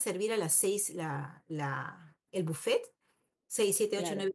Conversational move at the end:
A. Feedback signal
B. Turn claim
A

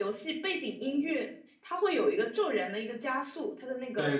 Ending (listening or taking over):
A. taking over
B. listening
A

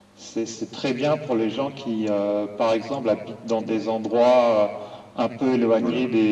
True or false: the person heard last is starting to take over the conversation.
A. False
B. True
A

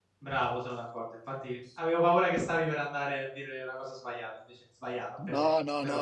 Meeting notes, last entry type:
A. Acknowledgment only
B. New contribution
B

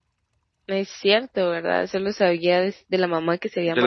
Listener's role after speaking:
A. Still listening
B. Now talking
B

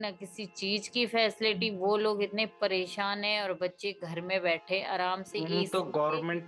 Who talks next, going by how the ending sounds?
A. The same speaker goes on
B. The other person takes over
B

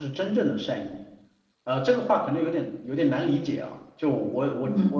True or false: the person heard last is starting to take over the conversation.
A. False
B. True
B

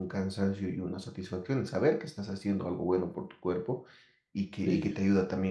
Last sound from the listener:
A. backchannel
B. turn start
A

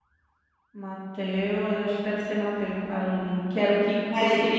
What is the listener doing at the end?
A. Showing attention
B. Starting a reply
A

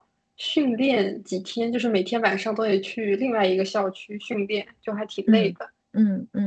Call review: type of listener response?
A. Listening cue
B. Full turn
B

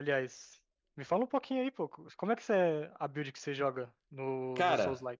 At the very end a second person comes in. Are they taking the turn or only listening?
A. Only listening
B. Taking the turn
B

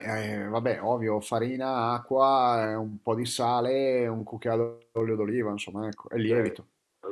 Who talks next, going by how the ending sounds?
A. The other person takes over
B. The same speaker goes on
A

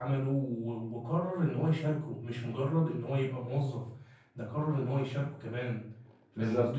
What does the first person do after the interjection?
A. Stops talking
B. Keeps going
A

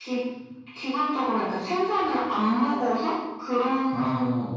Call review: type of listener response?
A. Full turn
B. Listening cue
B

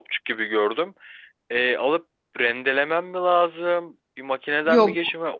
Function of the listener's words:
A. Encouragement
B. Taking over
A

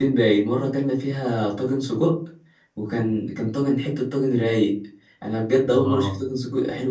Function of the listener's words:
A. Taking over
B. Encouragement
B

